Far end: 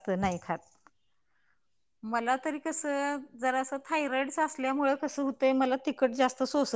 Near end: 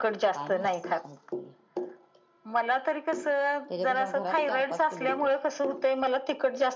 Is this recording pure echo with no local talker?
No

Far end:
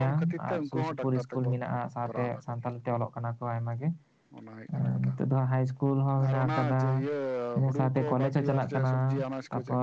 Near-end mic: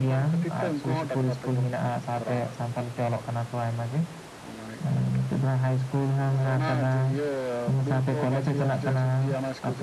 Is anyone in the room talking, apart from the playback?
No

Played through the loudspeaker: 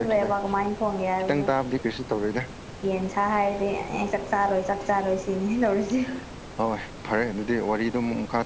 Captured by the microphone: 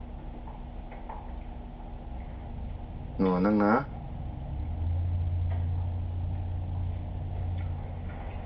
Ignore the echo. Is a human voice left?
Yes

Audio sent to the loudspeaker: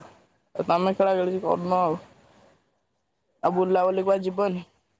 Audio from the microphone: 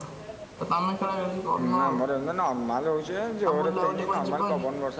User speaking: Yes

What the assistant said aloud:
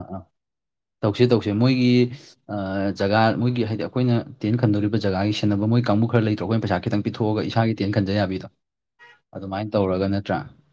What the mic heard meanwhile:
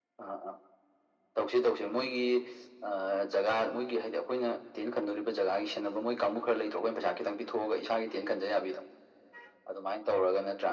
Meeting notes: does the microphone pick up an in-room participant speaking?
No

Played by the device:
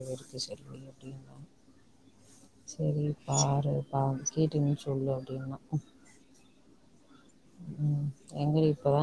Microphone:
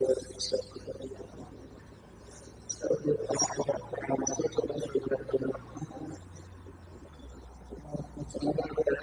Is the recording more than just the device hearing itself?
No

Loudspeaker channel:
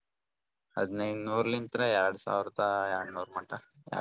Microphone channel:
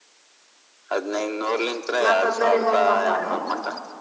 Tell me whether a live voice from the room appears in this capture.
Yes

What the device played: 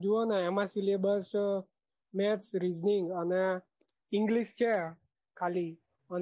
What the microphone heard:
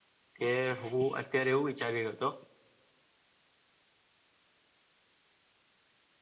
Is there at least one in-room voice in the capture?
Yes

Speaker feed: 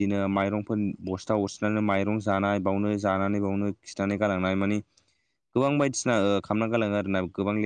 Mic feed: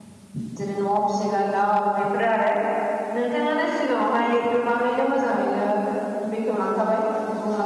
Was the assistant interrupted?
Yes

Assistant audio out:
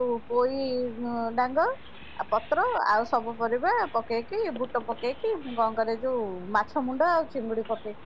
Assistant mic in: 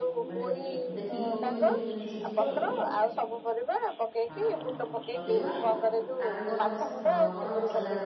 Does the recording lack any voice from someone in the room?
No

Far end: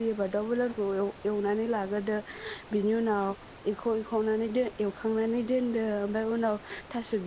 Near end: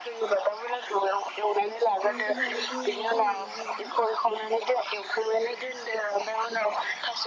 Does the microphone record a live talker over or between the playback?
Yes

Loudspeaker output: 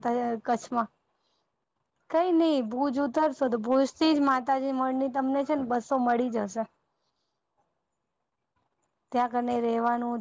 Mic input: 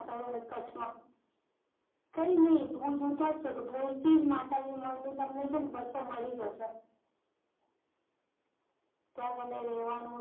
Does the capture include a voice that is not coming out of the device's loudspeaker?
No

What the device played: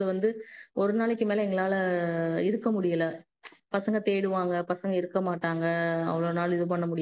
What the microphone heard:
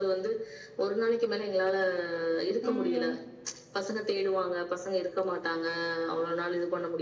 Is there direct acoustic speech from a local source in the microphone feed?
Yes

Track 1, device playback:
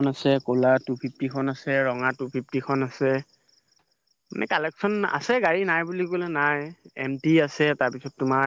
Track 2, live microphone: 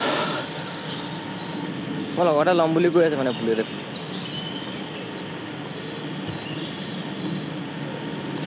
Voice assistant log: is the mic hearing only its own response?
No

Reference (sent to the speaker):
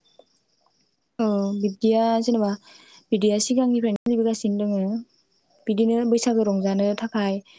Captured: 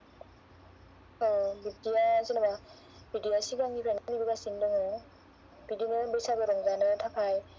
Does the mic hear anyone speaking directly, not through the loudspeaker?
No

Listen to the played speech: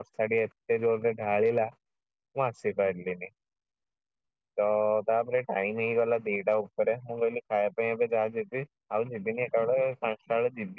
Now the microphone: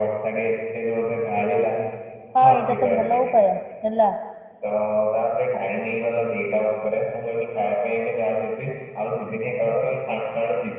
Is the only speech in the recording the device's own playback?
No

